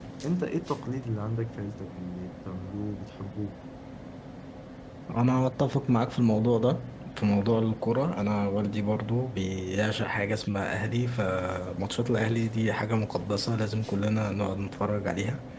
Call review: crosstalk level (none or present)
none